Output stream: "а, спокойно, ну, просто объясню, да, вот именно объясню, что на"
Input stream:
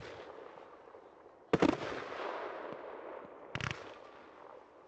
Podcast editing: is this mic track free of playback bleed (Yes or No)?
Yes